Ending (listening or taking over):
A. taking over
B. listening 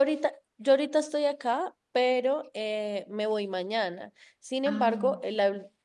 B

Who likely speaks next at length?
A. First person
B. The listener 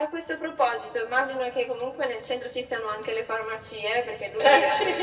A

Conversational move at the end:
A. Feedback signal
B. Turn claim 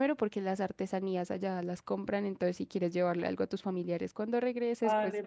B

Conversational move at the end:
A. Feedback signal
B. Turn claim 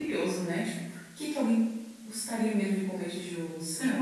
B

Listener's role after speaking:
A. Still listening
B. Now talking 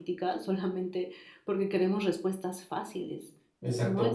B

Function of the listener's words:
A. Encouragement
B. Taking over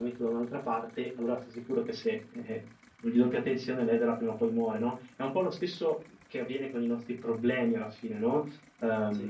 A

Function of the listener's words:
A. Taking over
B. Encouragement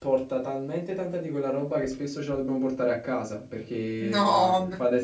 B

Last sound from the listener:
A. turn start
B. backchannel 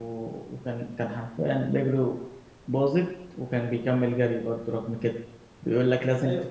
B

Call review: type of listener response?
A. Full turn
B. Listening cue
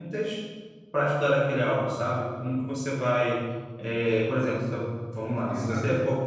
A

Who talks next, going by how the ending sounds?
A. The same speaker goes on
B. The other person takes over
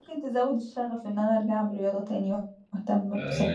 B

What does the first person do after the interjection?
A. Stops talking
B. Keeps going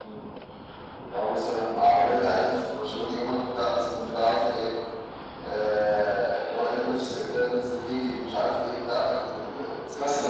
A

